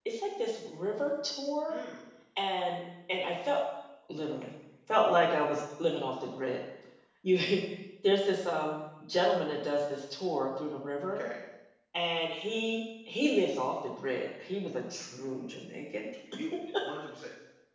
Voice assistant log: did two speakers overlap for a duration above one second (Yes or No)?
No